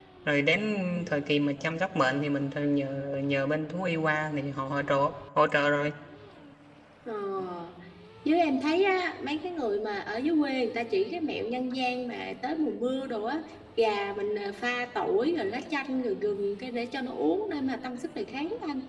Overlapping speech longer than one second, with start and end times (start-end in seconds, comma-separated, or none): none